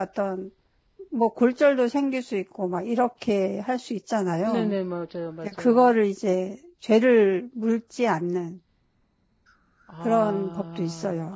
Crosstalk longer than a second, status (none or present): present